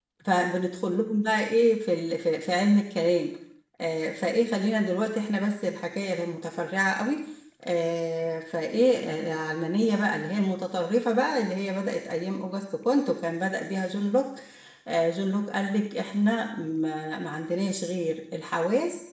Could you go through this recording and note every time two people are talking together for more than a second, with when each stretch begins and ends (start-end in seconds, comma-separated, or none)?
none